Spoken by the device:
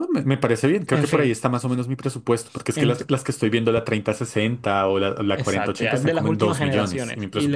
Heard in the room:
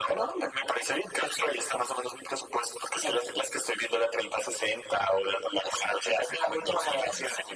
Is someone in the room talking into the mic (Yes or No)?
No